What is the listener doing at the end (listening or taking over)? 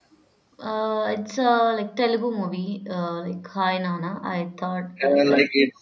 taking over